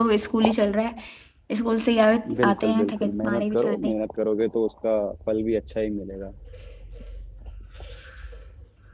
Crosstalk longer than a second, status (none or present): present